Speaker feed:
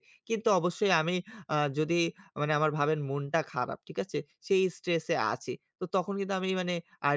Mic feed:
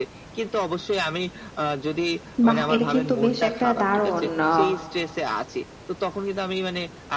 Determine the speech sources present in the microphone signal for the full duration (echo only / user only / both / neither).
both